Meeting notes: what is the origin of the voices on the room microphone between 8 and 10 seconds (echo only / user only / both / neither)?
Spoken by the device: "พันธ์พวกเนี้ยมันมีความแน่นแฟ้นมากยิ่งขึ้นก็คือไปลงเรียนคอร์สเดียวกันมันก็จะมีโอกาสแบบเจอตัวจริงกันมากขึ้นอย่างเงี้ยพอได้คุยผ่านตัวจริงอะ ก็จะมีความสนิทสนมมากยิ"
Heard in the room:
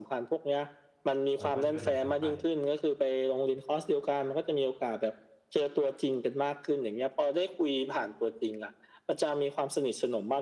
echo only